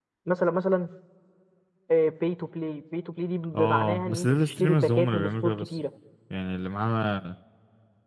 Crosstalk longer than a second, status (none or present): present